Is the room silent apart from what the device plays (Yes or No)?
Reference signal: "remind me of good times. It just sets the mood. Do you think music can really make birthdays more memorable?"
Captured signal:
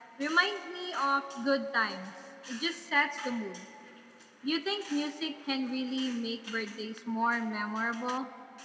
Yes